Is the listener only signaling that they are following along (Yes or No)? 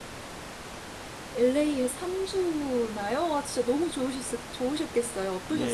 No